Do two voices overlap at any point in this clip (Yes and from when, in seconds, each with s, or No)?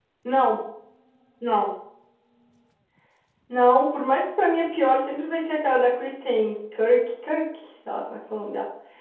No